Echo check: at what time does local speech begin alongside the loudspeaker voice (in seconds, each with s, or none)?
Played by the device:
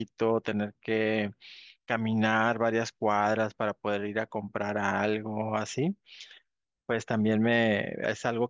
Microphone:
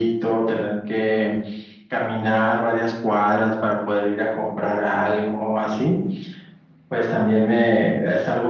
none